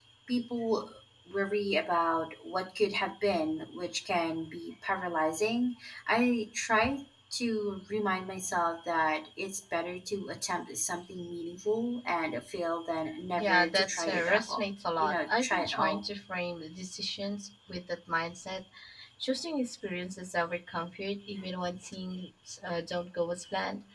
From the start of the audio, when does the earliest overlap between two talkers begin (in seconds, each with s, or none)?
13.3 s